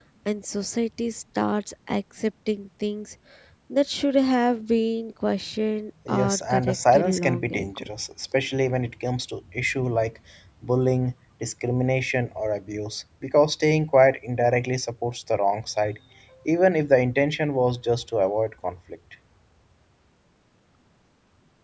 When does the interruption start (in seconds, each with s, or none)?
6.1 s